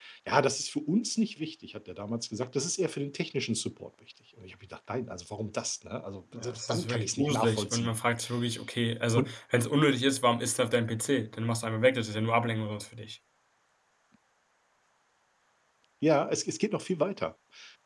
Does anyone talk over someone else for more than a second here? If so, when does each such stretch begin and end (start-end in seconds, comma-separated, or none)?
6.3-7.9